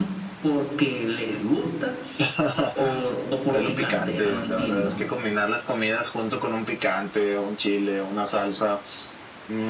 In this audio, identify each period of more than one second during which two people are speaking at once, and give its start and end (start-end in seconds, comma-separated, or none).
3.5-5.0